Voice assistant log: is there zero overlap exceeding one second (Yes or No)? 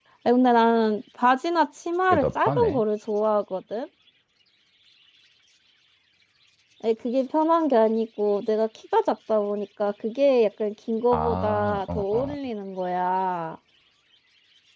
No